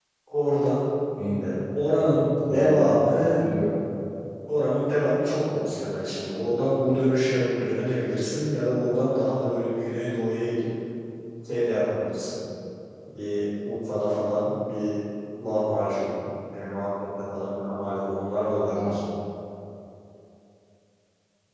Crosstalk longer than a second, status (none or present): none